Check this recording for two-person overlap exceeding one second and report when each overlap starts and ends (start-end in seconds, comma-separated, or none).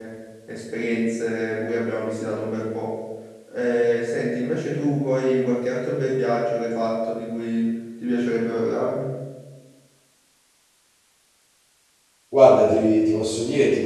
none